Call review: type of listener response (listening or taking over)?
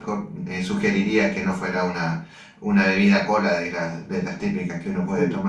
taking over